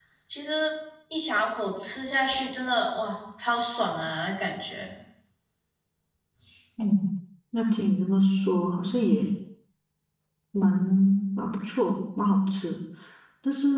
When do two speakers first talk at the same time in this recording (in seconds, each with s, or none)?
none